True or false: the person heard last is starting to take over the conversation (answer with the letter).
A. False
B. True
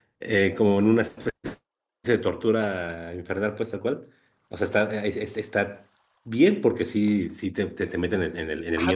B